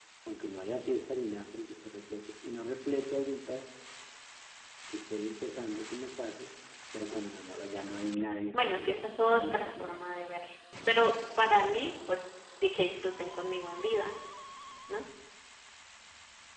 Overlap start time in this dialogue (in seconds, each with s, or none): 8.5 s